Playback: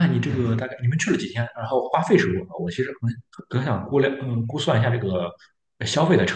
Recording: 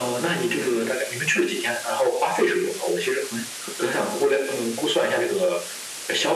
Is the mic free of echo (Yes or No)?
No